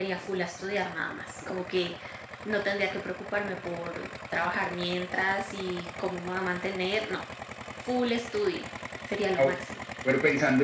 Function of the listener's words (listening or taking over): taking over